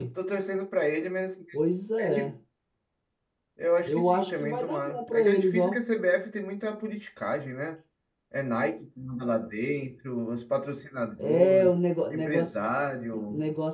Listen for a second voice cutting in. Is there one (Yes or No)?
Yes